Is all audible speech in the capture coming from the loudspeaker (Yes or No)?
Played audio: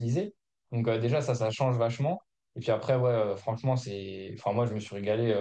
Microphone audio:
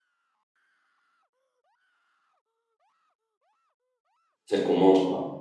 No